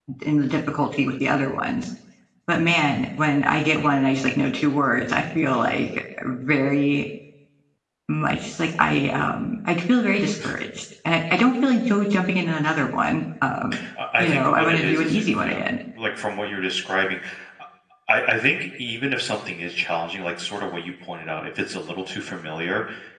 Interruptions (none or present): present